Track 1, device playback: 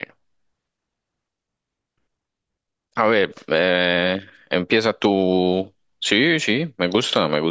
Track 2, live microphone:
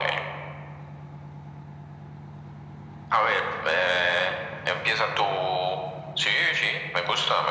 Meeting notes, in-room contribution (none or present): none